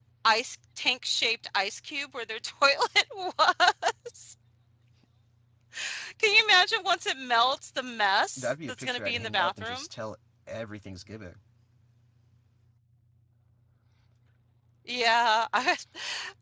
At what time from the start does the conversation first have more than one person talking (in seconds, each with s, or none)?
8.4 s